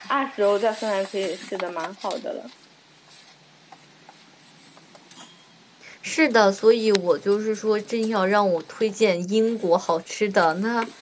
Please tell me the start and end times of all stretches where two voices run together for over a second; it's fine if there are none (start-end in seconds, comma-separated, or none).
none